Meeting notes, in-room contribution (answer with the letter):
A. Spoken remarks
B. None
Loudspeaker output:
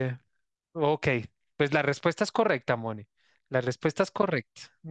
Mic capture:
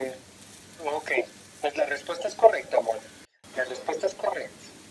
B